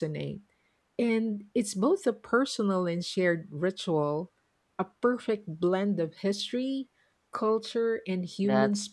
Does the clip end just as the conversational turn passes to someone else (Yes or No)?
Yes